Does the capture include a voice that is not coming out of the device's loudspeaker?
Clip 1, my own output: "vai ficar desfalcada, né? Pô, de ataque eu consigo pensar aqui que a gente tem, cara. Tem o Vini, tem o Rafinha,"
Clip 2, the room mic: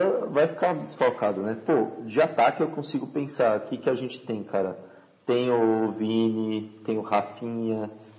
No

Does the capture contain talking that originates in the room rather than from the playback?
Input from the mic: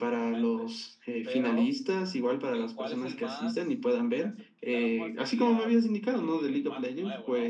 Yes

